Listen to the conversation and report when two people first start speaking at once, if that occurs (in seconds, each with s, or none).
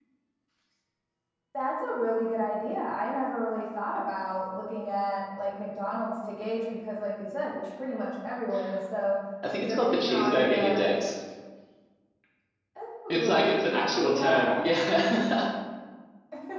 9.7 s